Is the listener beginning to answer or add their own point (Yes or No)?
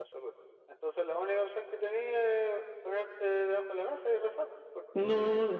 Yes